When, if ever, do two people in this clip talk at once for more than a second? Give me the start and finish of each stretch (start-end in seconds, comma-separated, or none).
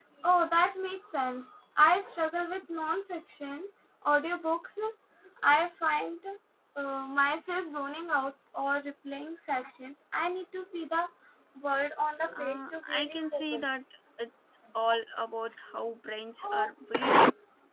12.3-13.7